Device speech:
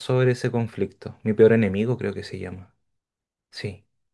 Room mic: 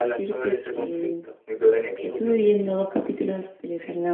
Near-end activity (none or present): present